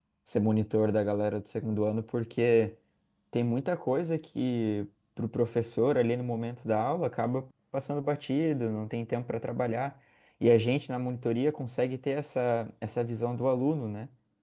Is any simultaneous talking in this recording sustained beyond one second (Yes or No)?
No